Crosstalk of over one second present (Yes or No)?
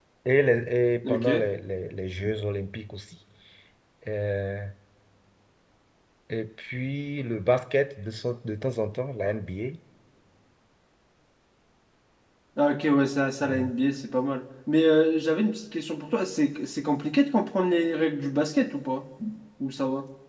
No